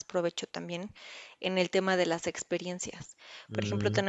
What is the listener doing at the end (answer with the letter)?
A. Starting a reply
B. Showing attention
B